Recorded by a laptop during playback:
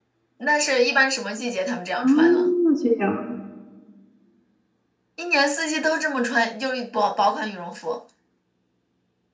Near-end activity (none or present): present